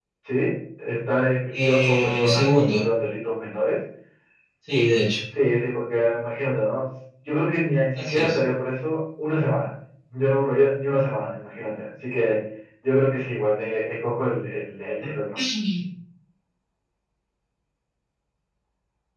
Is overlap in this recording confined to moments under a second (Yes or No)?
No